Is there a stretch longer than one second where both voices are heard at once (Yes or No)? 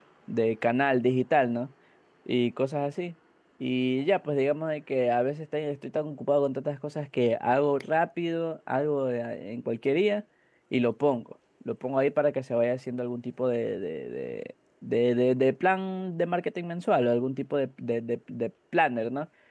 No